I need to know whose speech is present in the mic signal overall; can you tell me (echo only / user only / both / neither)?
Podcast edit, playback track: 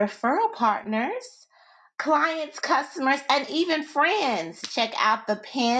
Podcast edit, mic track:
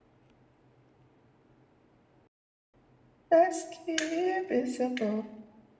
user only